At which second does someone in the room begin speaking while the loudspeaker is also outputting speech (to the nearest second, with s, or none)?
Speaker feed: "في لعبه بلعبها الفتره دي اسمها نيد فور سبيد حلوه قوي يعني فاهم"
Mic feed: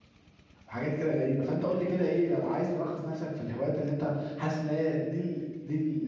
1 s